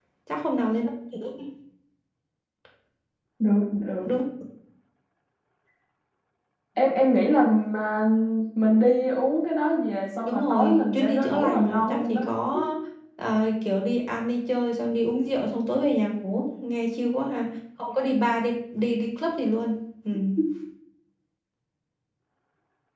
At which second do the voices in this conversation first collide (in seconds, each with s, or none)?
10.2 s